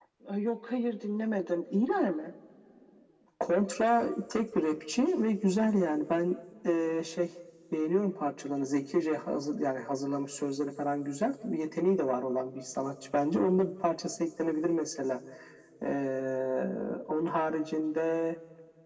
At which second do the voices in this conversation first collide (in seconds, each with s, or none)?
none